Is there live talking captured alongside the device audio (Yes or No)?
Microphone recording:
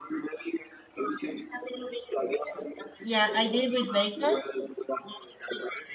Yes